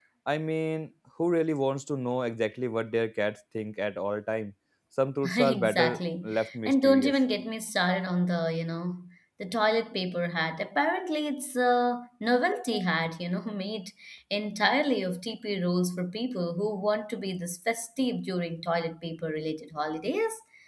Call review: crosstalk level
present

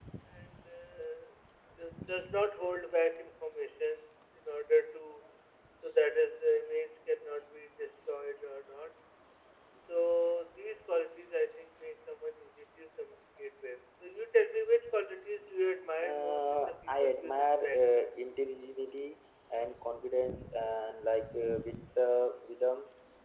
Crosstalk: present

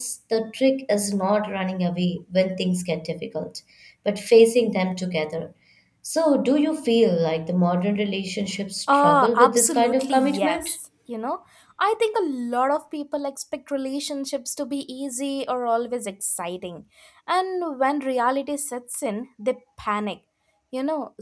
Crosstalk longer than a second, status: present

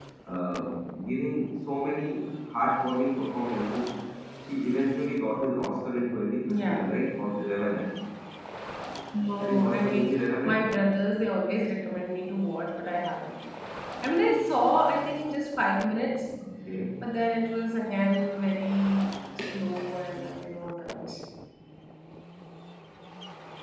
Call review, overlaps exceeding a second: present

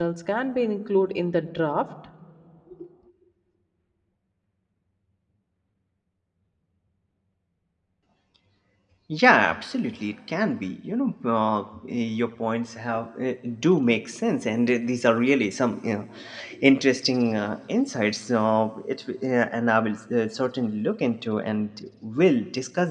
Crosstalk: none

